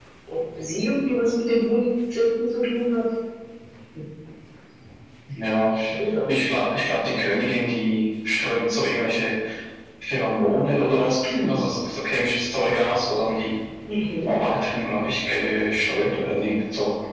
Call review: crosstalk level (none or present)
none